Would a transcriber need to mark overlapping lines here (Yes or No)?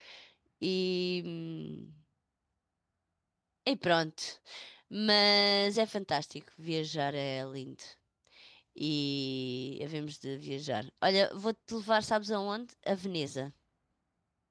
No